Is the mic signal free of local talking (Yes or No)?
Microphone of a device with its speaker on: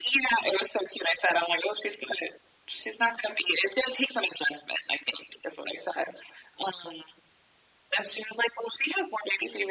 Yes